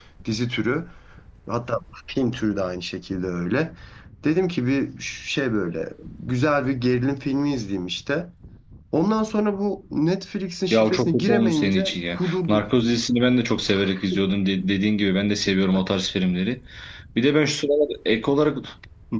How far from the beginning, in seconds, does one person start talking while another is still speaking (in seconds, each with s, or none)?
10.7 s